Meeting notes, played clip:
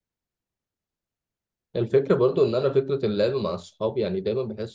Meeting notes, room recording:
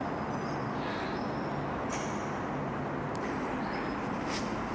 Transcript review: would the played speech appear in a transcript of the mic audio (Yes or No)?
No